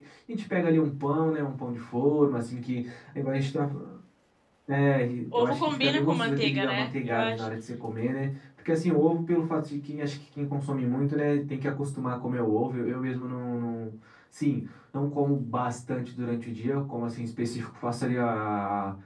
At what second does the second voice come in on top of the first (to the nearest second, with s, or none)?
5 s